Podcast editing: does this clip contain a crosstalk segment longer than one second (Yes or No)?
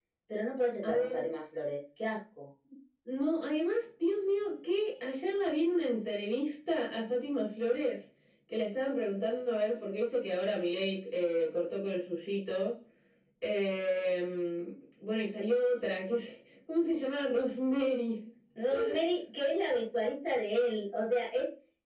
No